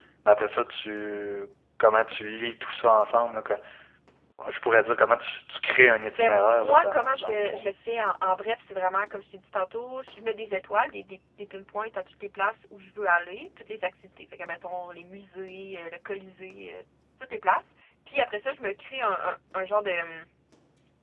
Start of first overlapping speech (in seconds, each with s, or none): 6.2 s